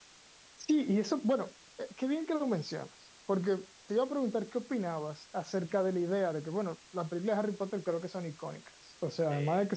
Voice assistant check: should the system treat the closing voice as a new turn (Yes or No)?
No